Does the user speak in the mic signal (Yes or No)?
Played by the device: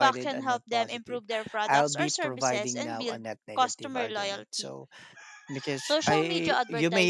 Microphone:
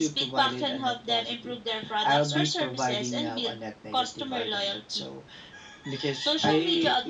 No